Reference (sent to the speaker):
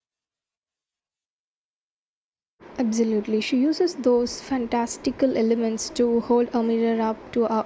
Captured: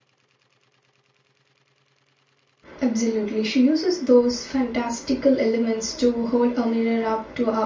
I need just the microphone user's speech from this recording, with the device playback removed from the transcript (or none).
none